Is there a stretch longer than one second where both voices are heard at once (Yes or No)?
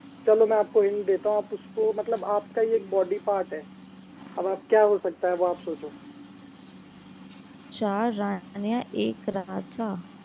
No